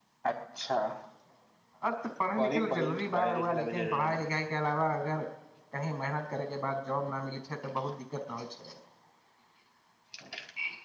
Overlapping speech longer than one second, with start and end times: 2.4-4.2

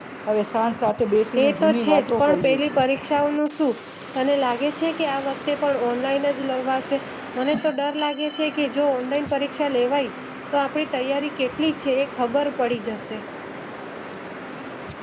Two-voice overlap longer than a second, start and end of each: 1.4-2.8

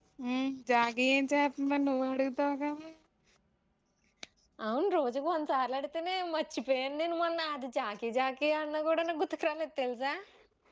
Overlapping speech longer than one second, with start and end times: none

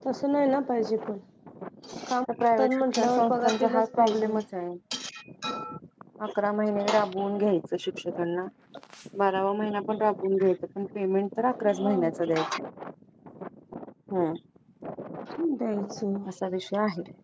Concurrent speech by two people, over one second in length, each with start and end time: 2.4-4.4

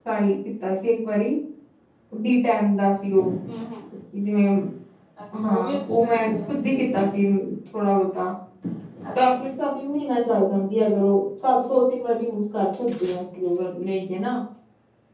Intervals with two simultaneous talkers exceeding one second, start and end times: 5.4-7.1

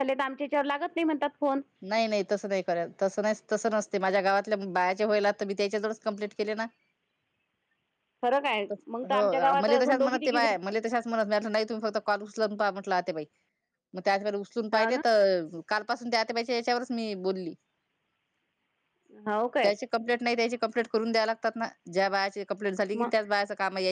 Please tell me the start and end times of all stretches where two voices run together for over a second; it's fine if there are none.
9.1-10.4

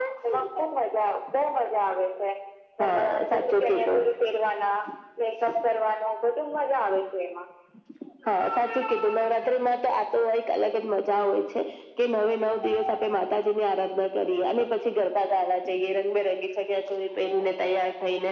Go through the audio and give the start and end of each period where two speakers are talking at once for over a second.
2.8-4.0

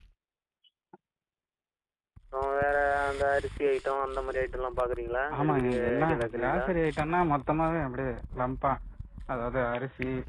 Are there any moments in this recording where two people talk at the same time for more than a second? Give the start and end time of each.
5.4-6.6

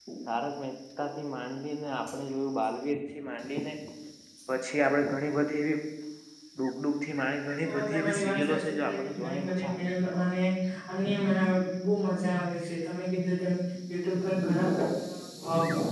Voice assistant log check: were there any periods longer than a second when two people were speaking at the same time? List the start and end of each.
7.6-9.8

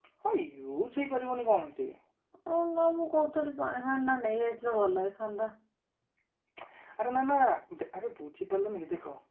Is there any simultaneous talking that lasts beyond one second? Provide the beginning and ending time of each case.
none

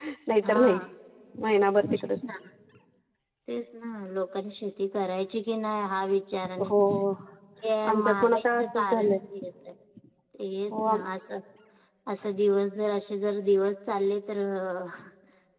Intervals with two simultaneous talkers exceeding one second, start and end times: 7.9-9.2

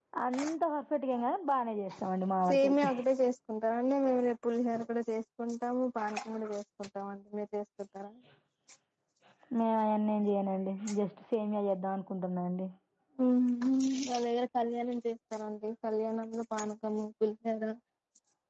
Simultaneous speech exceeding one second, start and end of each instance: none

